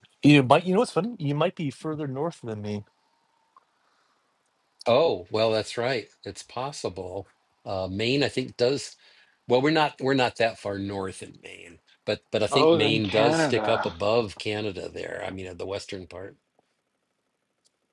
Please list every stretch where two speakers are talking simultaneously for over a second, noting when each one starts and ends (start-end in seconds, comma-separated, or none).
12.5-13.9